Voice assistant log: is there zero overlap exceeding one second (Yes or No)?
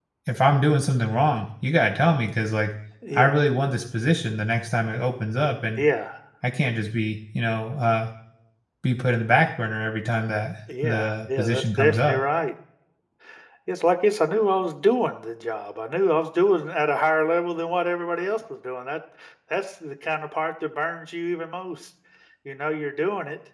No